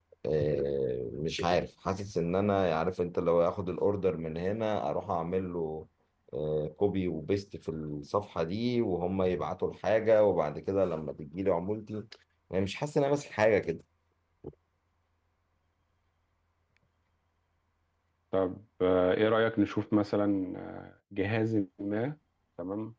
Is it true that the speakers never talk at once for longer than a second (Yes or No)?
Yes